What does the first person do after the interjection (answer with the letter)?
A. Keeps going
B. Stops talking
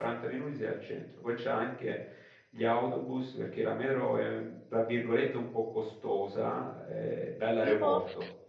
A